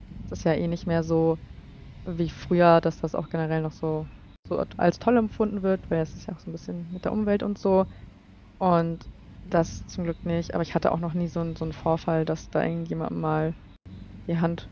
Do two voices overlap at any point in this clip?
No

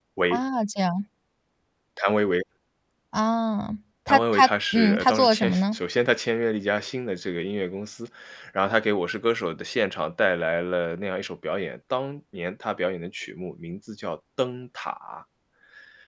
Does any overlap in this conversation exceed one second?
Yes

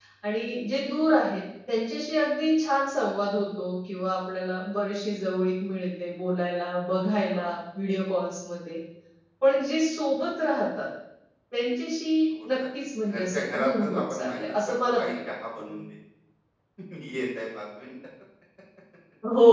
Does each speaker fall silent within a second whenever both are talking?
No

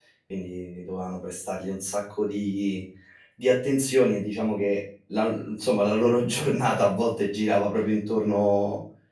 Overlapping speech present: No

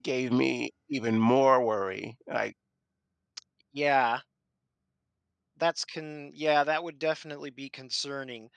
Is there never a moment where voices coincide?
Yes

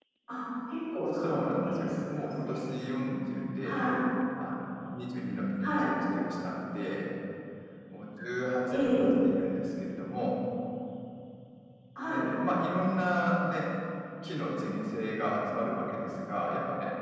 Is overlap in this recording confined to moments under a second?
No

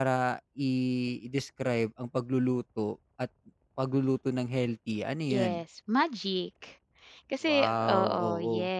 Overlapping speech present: Yes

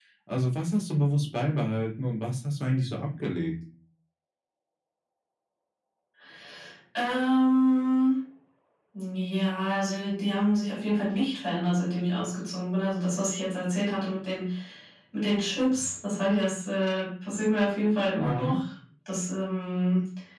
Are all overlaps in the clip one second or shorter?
Yes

